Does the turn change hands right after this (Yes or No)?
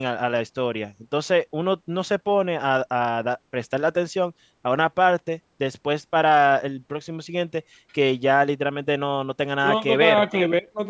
Yes